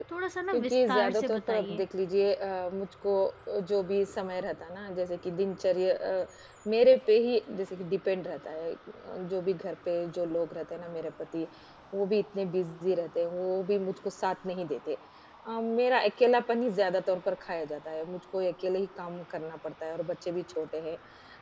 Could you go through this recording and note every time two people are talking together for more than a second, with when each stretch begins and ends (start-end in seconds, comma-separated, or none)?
0.5-1.8